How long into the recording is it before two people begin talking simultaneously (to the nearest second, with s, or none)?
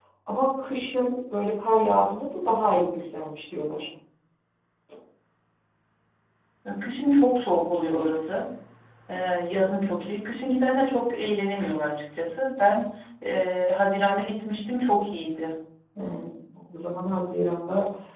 none